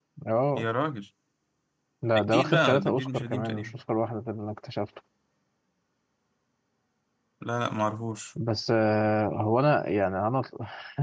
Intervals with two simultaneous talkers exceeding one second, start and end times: 2.1-3.7

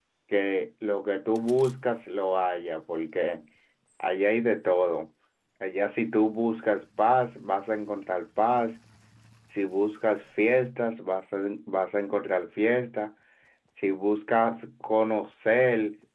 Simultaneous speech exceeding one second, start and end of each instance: none

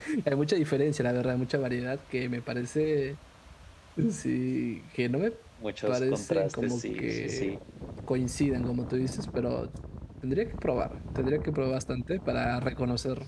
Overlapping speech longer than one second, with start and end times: 5.9-7.6

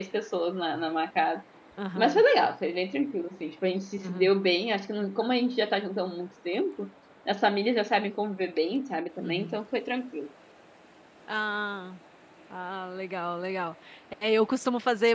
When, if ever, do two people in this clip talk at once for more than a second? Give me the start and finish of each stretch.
none

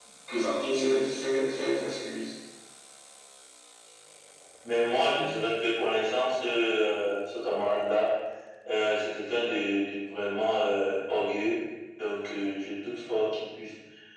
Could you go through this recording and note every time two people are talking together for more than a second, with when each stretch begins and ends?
none

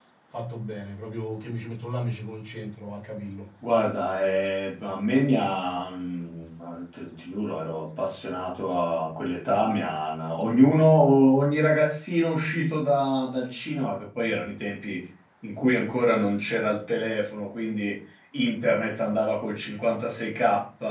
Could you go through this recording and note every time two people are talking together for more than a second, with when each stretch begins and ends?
none

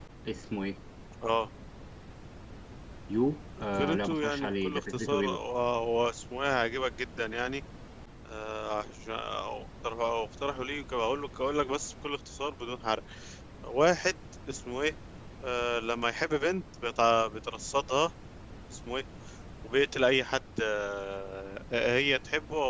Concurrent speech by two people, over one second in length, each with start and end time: 3.7-5.4

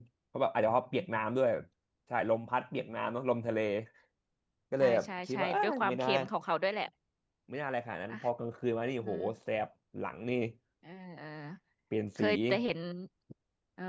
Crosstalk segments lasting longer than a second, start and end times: 4.8-6.1

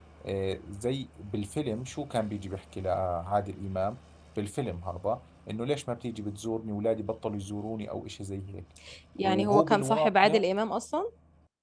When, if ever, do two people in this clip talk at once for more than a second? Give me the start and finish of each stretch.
9.2-10.5

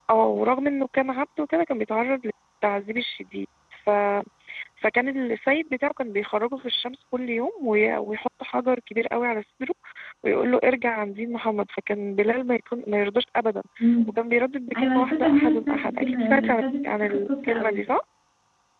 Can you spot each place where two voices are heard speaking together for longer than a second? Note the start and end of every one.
14.8-17.8

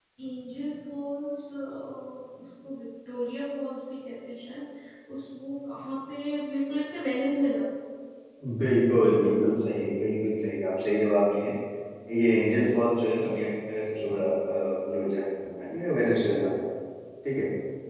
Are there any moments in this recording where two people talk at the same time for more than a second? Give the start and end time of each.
none

